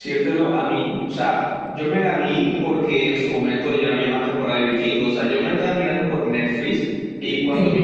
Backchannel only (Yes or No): Yes